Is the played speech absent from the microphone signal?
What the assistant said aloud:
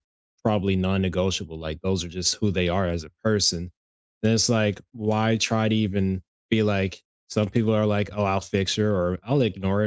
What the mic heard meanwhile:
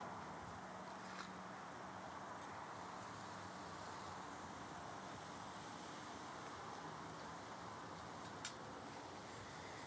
Yes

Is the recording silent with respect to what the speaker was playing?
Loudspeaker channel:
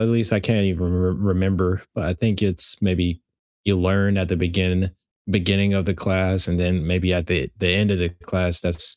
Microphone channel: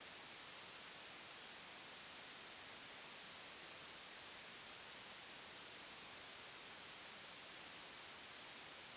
Yes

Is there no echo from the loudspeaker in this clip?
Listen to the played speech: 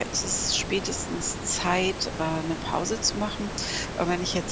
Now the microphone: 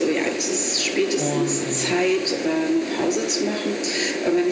No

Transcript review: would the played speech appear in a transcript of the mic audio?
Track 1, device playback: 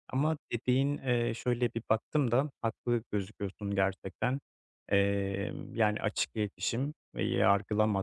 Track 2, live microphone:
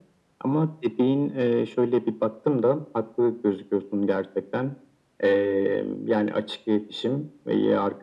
Yes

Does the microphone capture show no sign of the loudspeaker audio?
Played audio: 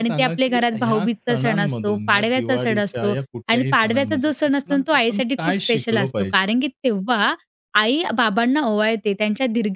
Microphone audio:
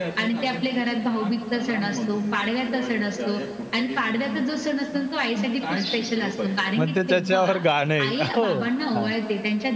No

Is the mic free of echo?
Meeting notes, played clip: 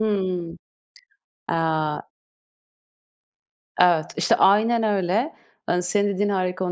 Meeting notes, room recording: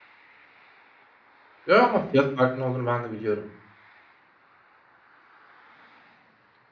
Yes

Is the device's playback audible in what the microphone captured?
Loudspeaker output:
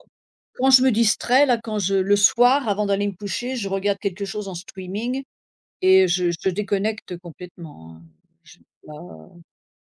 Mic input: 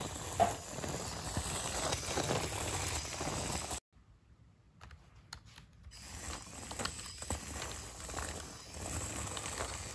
No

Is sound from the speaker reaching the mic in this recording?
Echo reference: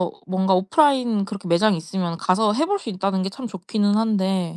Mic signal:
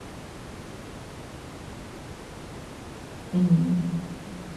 No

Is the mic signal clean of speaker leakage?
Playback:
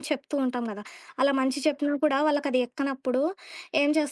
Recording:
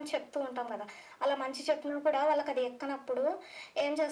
No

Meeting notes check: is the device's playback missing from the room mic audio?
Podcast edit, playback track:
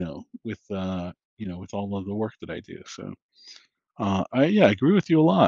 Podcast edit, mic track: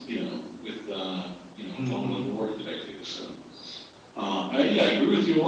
No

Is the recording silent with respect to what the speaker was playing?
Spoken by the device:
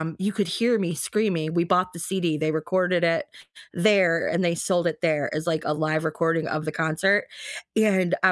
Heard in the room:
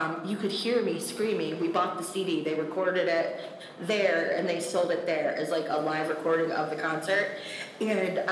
No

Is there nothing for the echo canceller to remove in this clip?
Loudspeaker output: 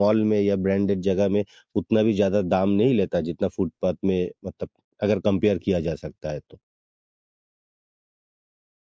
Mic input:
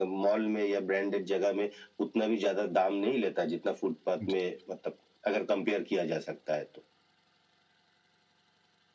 No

